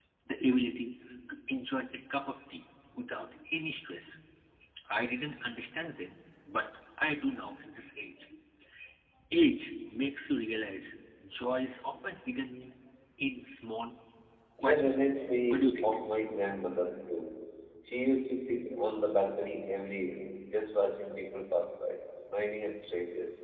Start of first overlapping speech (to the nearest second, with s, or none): 15 s